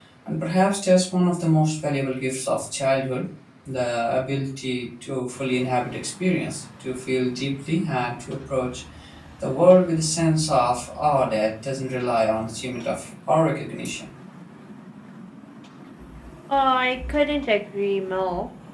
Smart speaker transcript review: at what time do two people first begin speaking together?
none

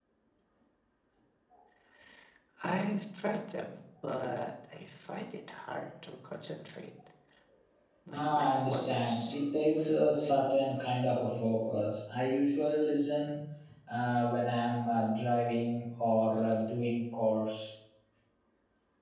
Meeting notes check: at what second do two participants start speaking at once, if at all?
8.1 s

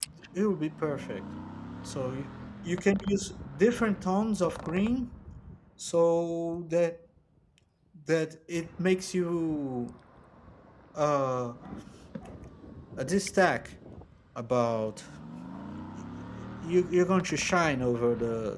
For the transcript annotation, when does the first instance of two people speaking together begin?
none

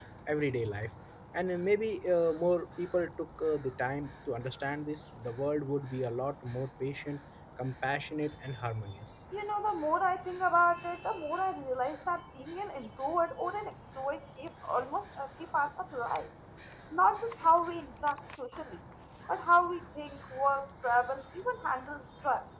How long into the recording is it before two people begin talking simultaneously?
none

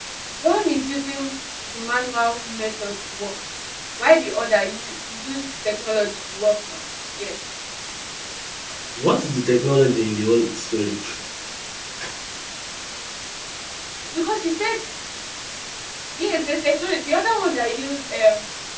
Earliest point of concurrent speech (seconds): none

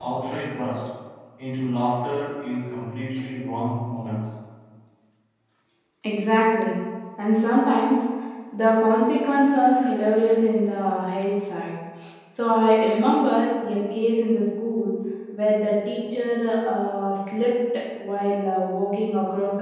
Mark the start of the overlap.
none

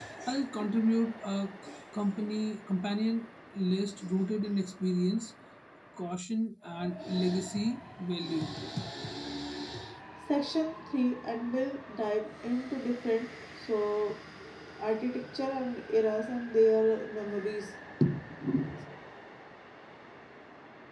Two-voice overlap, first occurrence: none

